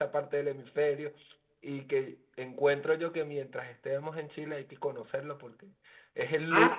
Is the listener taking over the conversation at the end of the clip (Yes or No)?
No